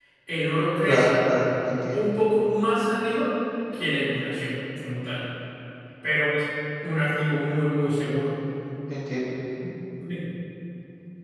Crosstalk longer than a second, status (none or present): none